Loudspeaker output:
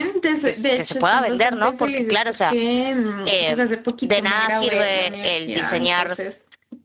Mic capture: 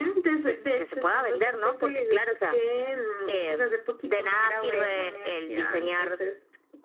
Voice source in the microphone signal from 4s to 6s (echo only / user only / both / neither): echo only